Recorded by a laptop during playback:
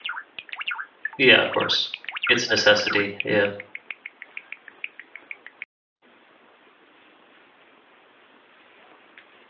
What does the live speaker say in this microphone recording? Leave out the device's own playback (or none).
Yeah, of course. It's a necessity, yeah.